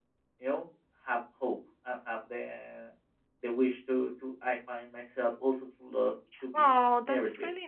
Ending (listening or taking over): taking over